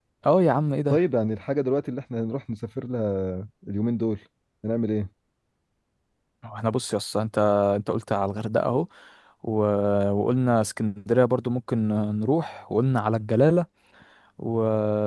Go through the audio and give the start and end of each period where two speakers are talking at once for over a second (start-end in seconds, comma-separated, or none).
none